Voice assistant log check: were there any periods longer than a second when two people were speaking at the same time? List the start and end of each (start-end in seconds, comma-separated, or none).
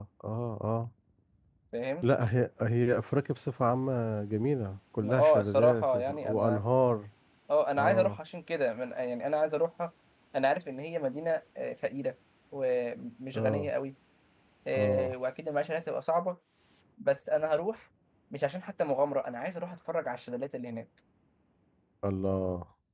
5.0-6.6